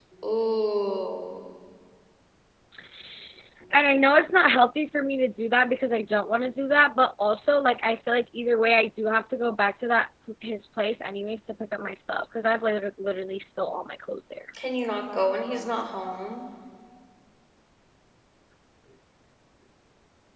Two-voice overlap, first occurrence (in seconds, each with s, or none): none